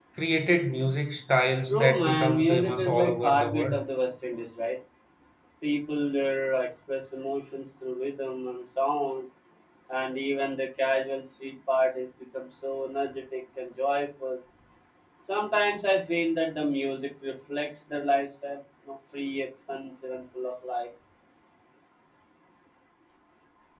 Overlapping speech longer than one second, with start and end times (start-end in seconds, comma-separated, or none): 1.7-3.8